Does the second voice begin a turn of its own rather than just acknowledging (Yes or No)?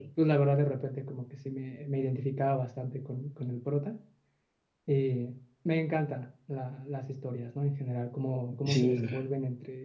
No